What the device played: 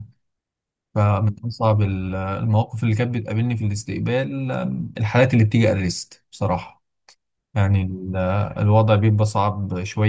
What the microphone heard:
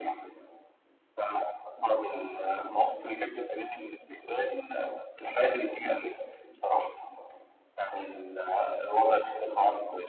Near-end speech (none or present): none